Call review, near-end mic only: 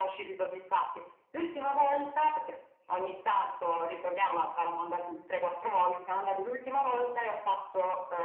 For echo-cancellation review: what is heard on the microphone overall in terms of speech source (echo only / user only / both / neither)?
echo only